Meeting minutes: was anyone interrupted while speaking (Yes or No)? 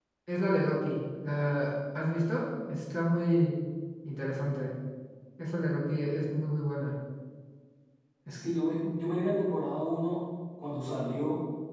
No